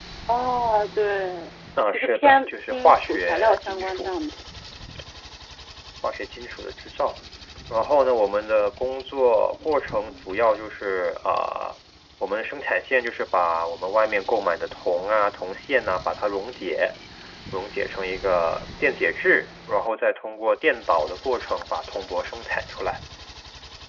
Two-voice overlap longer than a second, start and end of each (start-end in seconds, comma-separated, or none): 1.9-4.1